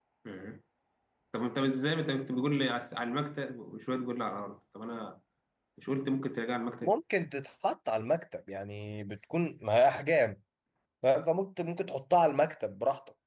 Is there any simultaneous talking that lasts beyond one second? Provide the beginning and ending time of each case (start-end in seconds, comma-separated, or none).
none